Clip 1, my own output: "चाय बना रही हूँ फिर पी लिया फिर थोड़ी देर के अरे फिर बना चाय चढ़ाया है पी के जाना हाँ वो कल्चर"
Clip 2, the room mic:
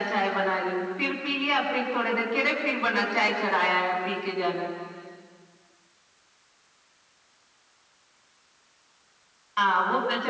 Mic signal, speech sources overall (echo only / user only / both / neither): echo only